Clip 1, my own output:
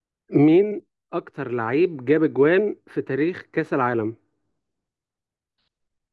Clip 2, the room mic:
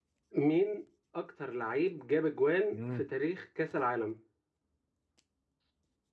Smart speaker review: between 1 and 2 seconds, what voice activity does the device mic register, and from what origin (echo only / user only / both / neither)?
echo only